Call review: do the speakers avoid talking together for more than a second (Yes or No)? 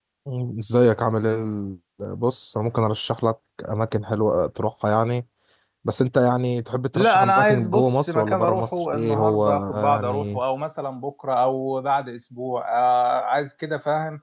No